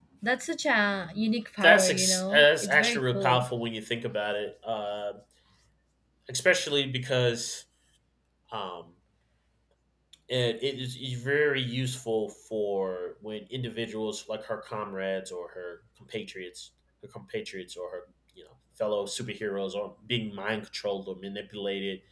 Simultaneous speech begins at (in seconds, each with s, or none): 1.6 s